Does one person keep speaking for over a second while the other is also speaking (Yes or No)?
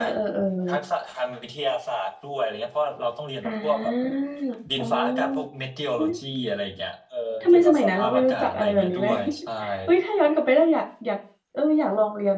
Yes